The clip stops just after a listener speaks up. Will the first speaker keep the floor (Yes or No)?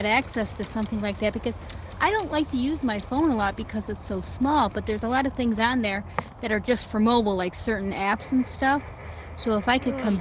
Yes